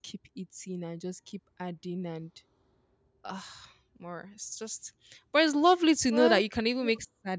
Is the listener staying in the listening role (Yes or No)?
Yes